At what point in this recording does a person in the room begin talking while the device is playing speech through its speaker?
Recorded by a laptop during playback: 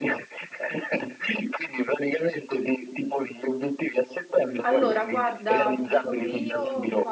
5 s

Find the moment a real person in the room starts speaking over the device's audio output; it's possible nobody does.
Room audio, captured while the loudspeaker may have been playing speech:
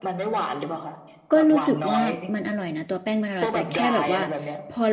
1 s

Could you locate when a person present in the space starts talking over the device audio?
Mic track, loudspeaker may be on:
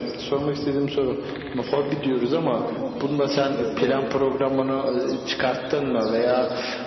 3 s

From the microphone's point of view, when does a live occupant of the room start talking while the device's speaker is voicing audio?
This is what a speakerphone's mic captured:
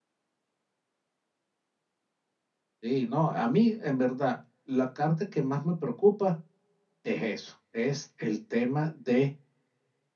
3 s

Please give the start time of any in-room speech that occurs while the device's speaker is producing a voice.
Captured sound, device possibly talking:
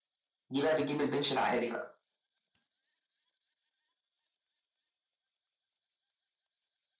1 s

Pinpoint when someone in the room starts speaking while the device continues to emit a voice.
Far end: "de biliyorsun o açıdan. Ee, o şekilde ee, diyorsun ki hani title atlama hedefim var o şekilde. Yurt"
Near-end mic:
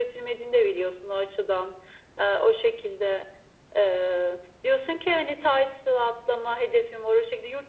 none

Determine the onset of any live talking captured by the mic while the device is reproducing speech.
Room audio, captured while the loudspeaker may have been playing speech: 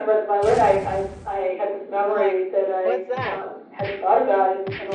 2 s

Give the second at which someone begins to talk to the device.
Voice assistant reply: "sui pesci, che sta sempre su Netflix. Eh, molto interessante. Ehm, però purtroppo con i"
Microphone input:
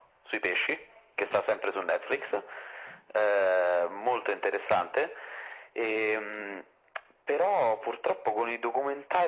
none

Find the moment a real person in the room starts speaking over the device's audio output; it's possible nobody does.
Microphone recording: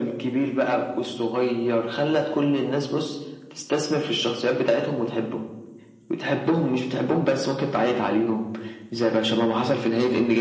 none

